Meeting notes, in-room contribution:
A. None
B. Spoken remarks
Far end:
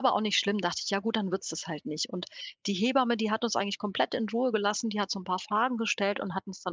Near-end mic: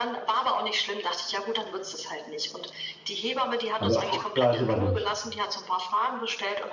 B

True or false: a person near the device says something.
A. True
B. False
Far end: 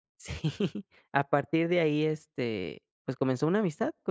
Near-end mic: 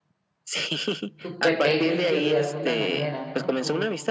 A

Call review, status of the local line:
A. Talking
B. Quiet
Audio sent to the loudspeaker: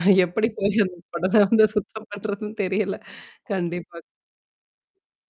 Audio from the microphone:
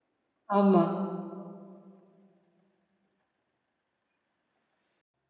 A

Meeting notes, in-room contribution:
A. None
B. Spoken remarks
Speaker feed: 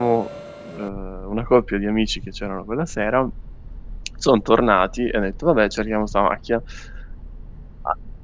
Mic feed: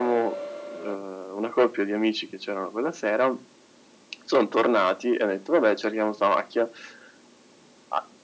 A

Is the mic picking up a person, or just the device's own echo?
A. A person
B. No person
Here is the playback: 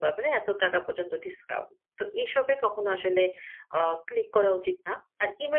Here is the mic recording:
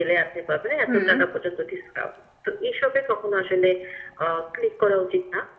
A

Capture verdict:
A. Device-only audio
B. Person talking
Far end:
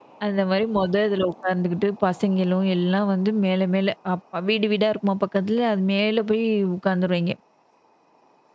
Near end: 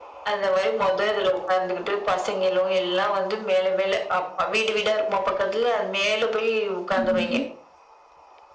B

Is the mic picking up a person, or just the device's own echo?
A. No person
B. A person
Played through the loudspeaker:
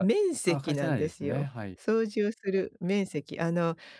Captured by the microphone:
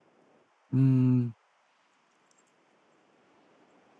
B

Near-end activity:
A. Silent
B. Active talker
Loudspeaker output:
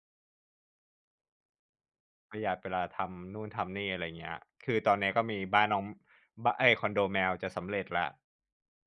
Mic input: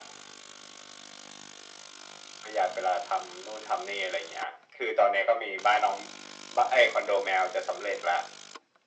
A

